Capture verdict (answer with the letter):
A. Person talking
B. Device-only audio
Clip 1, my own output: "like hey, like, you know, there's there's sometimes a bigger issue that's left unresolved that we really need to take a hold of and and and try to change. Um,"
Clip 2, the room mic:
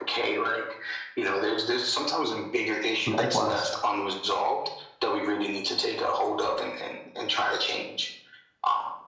A